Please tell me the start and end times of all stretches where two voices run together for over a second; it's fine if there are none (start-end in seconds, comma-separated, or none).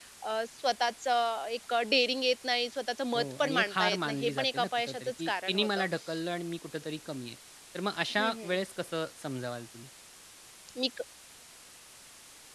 3.1-5.8